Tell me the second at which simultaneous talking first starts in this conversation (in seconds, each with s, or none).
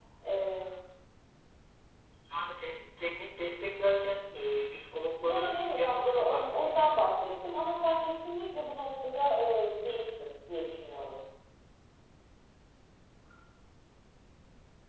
5.2 s